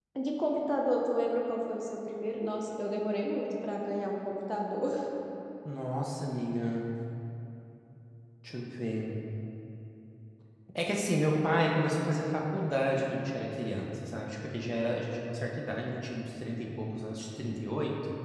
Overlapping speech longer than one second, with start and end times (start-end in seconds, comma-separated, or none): none